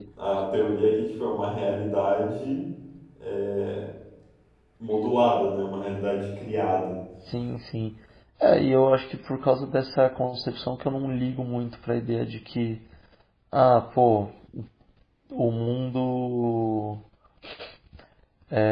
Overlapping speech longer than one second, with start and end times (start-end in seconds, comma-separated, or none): none